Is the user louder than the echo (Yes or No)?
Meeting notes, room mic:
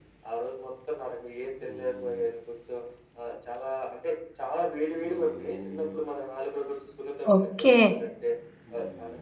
Yes